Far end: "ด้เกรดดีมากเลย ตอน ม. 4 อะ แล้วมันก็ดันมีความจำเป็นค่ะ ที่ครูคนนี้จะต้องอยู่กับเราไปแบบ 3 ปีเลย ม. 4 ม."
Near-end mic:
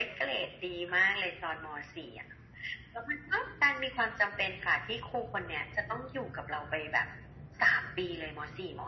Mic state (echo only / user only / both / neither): echo only